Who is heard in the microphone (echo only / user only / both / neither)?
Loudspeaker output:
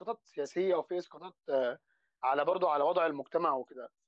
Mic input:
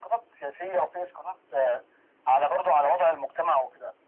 echo only